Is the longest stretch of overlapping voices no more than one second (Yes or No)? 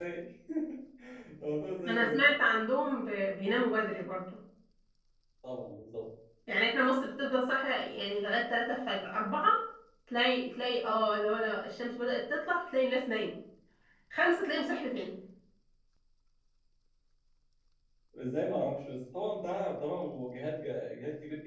Yes